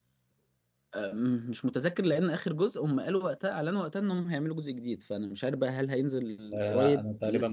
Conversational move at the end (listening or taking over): taking over